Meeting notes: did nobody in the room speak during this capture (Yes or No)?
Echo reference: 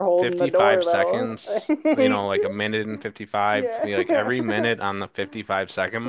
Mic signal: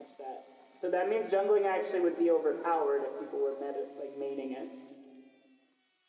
No